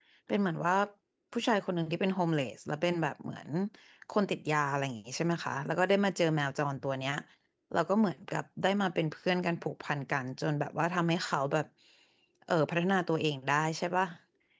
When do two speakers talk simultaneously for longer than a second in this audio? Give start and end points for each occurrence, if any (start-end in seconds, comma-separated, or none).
none